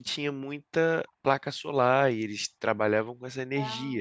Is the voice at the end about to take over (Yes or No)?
No